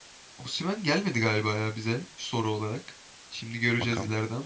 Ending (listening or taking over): listening